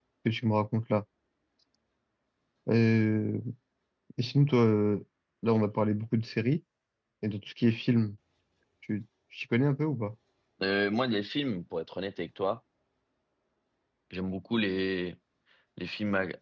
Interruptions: none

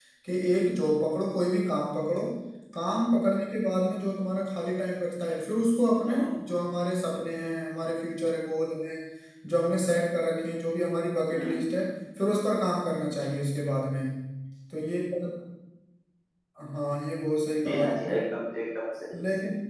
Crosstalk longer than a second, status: none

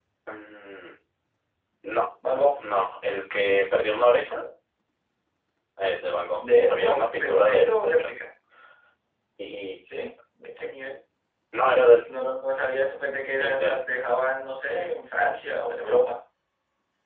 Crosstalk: present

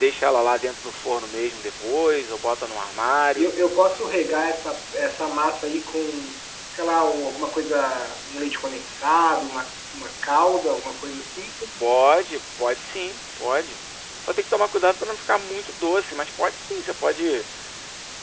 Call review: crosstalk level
none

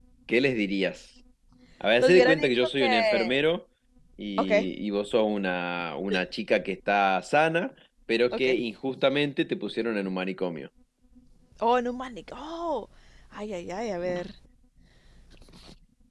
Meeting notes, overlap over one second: present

